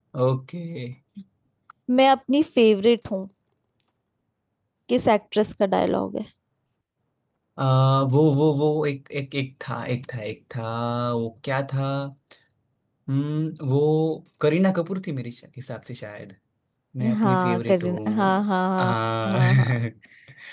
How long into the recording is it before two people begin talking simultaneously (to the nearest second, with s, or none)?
17 s